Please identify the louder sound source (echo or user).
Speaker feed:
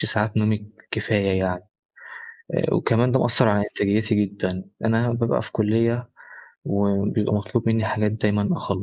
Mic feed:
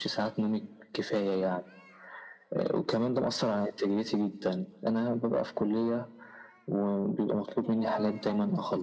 echo